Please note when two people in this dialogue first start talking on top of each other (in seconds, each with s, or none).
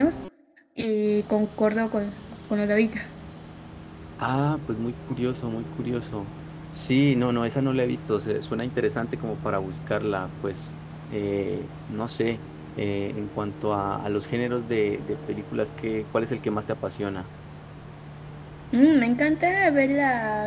none